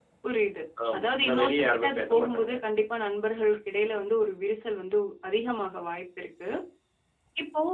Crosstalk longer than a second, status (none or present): present